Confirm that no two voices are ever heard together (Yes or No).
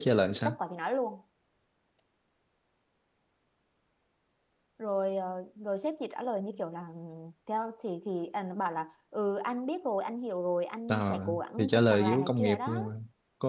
No